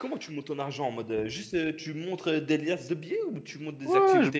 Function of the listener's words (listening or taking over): taking over